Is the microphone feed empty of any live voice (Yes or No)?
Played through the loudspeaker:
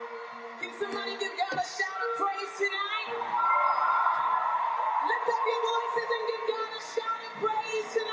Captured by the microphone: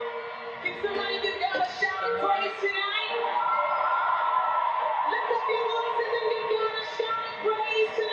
No